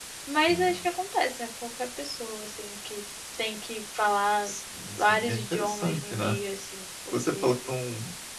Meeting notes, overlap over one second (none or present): present